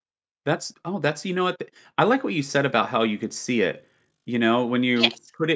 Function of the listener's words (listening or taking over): listening